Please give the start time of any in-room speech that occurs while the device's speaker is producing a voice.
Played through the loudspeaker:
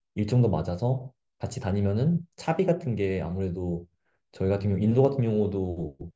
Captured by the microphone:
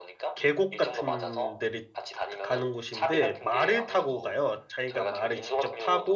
0 s

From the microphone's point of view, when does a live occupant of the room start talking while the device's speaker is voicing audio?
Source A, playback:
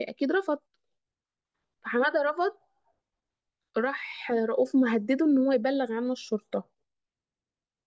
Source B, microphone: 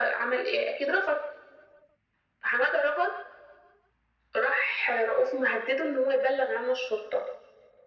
none

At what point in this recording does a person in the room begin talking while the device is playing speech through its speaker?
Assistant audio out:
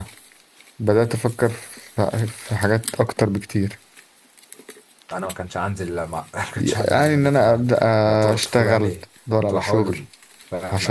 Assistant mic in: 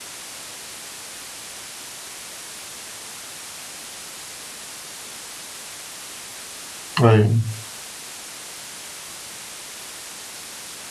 7 s

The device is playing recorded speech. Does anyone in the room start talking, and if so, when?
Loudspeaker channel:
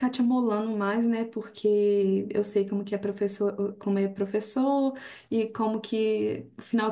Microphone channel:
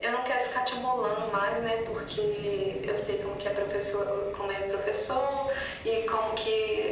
none

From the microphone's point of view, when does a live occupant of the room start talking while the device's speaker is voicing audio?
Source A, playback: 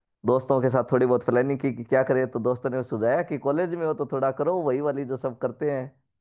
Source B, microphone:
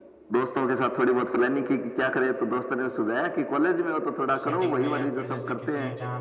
4 s

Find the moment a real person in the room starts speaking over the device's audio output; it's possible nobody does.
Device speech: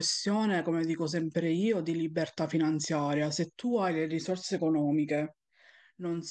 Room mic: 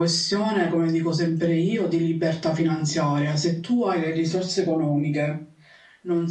none

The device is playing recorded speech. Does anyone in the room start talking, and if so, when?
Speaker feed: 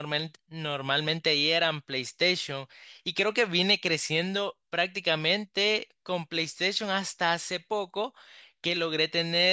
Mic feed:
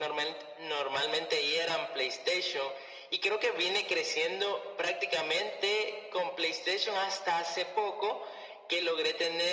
none

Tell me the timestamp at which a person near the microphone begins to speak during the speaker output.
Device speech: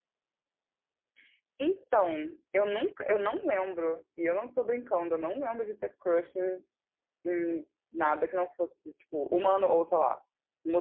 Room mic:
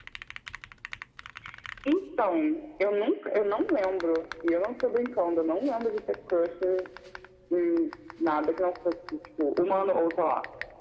none

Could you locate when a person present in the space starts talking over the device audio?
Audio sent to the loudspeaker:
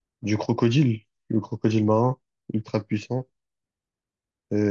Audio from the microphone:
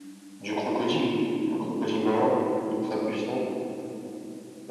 none

